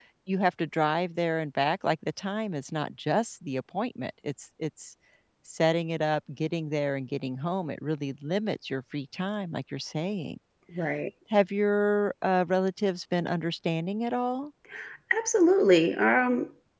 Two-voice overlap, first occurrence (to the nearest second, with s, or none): none